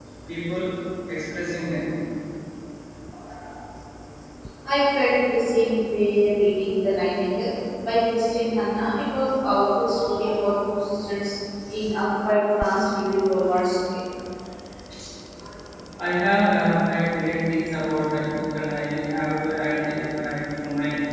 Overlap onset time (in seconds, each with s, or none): none